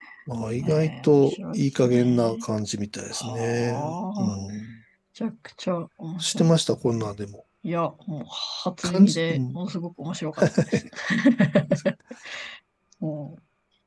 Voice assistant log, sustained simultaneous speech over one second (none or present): present